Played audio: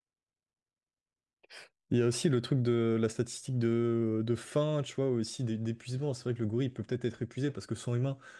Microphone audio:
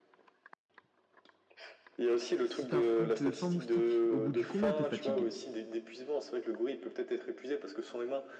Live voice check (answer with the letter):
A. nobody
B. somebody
B